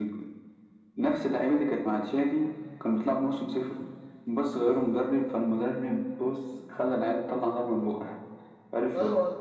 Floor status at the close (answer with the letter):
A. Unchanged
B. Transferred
B